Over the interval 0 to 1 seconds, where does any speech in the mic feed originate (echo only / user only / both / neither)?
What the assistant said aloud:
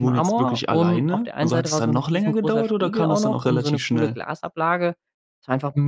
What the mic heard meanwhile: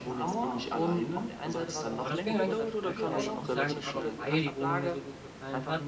echo only